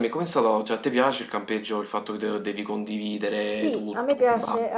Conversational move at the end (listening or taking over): taking over